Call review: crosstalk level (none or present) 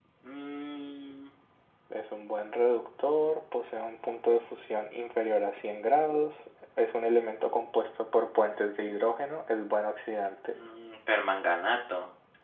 none